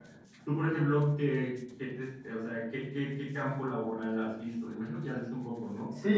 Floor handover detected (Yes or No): Yes